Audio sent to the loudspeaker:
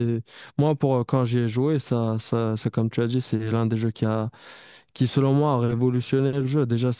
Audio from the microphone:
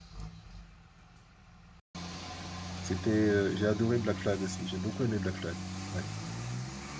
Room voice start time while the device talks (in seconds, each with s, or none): 2.8 s